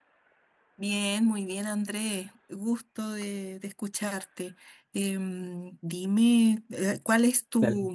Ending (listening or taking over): taking over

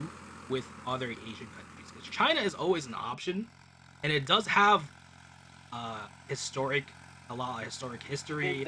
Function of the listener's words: taking over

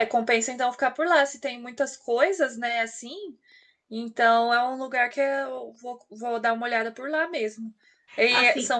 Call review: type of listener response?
listening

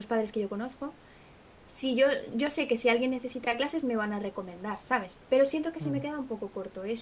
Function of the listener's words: listening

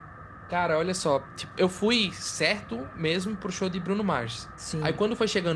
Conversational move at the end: listening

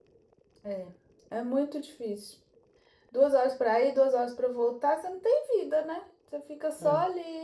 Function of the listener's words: listening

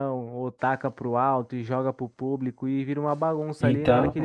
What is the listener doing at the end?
listening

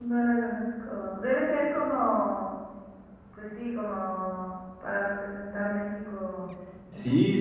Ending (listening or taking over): taking over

